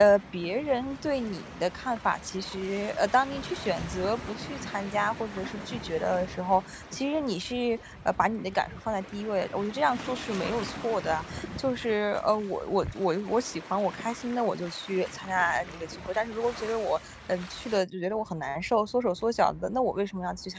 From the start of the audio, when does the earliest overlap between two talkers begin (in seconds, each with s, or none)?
none